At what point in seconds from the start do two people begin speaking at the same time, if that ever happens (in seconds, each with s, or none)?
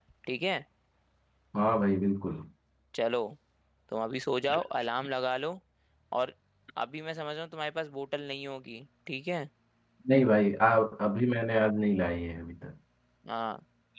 none